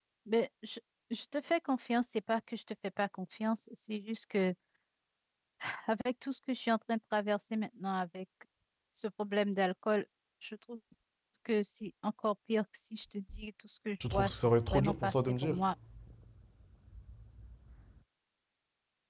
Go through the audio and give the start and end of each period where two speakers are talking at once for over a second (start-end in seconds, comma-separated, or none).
14.1-15.6